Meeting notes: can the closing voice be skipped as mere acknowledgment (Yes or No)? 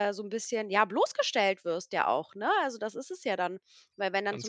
Yes